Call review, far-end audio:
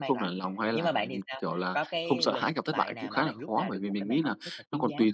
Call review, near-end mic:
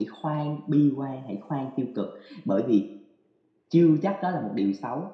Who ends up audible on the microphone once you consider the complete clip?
user only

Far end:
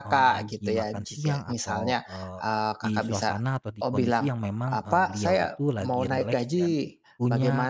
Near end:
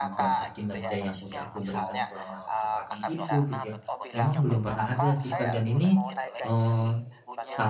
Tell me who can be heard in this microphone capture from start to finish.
both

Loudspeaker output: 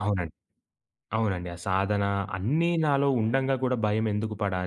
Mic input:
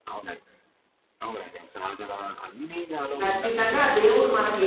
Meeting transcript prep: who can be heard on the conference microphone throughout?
both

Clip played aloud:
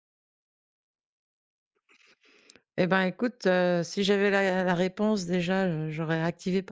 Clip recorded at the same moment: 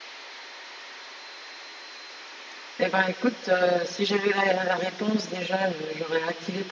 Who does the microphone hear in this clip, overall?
echo only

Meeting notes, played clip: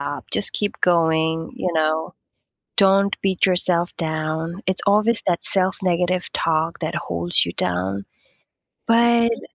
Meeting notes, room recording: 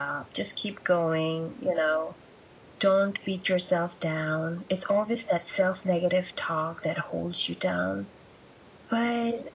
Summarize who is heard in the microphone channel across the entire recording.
echo only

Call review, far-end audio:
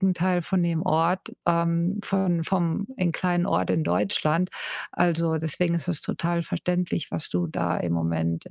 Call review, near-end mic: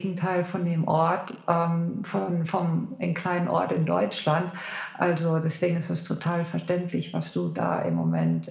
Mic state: echo only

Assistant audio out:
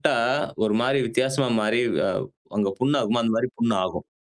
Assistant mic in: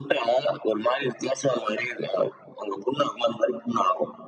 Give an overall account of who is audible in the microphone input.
echo only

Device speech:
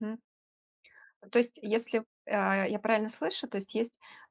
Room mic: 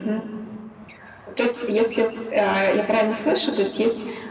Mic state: echo only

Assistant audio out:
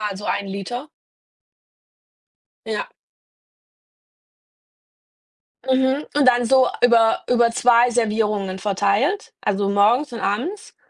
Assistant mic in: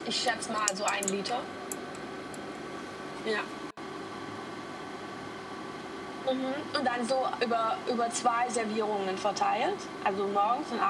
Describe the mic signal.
echo only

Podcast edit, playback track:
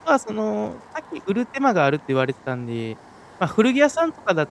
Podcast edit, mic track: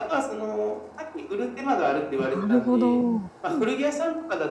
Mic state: both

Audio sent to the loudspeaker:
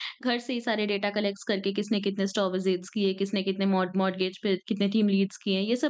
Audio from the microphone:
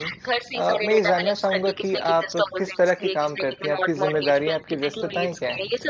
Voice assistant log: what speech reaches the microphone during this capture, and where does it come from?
both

